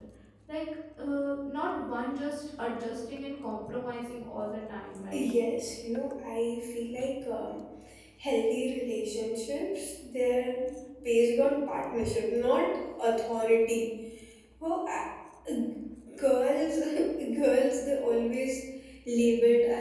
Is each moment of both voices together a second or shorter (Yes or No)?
Yes